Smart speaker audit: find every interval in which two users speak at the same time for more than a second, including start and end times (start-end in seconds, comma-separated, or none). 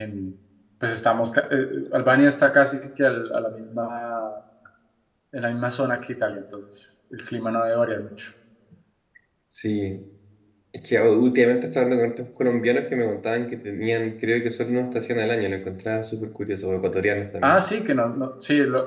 none